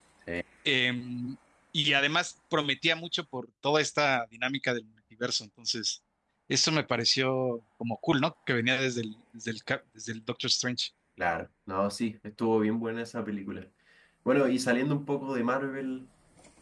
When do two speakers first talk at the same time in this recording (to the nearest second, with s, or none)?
none